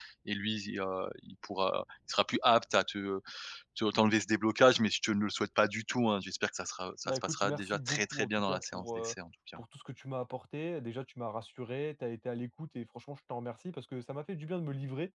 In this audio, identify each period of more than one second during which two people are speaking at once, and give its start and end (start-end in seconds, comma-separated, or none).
7.0-9.2